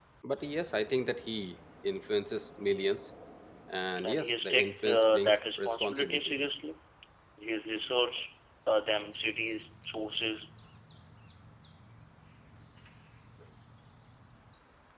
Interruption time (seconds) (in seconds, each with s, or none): 4.0 s